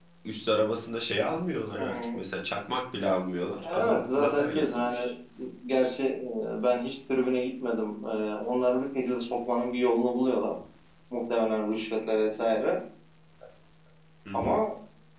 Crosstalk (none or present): present